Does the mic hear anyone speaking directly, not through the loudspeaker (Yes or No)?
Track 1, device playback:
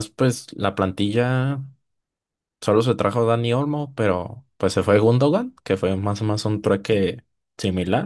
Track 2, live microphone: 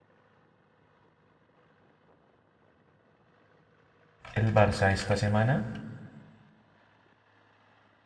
Yes